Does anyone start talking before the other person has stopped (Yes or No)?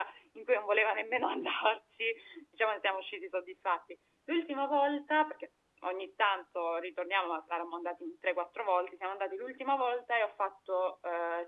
No